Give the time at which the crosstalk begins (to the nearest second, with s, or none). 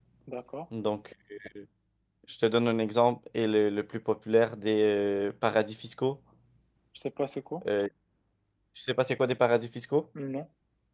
none